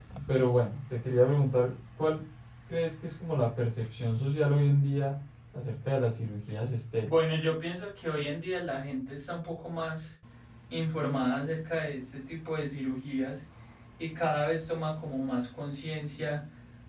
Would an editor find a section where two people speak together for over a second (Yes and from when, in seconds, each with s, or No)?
No